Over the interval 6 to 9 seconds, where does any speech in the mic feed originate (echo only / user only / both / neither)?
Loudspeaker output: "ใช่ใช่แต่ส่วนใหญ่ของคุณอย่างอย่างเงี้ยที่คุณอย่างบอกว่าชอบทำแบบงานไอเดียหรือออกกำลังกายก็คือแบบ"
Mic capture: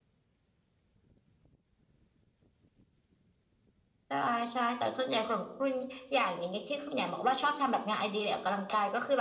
echo only